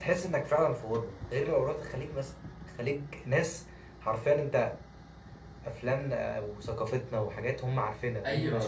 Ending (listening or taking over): taking over